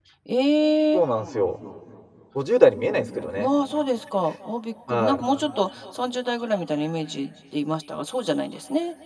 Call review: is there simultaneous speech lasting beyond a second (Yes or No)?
No